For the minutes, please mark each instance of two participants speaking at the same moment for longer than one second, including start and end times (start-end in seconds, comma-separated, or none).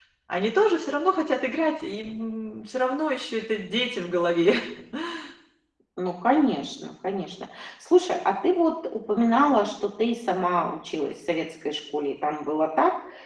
none